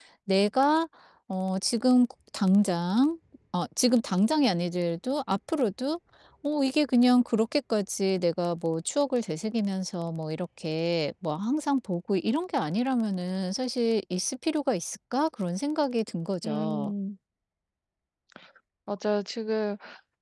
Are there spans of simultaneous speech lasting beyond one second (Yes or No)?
No